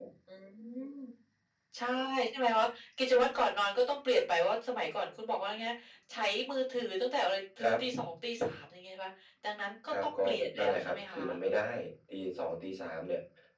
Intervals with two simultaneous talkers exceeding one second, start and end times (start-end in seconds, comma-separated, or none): 9.9-11.2